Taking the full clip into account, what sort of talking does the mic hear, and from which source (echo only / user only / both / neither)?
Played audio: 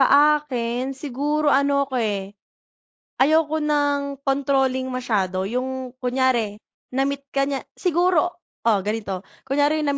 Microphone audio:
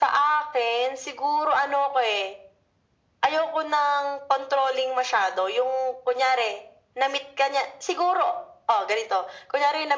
echo only